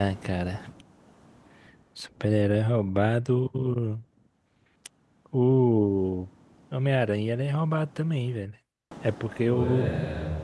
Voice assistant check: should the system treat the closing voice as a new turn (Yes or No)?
No